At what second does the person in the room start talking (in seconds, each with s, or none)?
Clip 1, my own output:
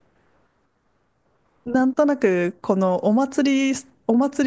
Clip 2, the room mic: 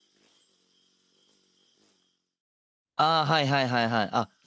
3.0 s